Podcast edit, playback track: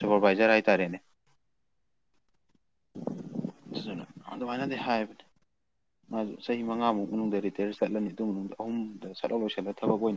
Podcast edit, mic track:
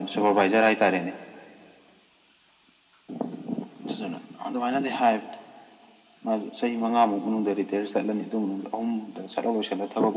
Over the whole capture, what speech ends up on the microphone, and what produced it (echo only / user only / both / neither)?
echo only